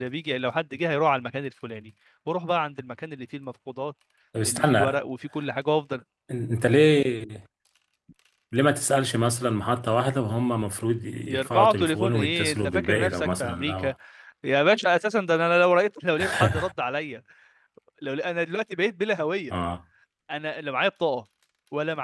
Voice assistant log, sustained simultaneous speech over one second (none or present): present